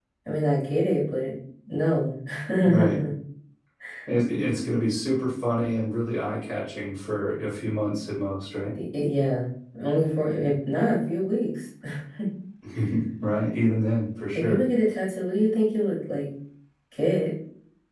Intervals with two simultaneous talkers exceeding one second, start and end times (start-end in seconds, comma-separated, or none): none